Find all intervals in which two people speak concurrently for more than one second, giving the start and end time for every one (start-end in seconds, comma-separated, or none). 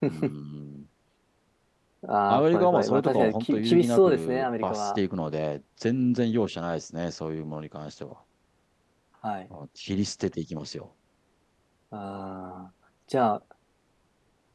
2.3-5.0